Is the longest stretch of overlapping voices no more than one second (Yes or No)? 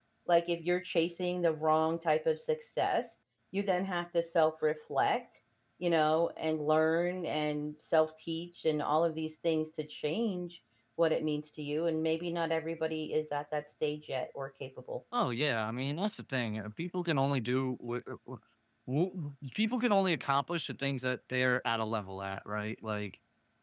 Yes